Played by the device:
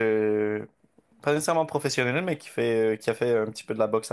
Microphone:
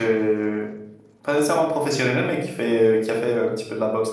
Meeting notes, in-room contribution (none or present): none